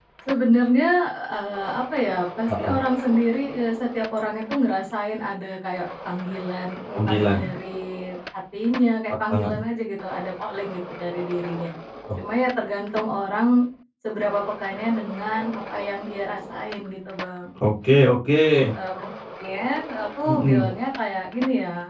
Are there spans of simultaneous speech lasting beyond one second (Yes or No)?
No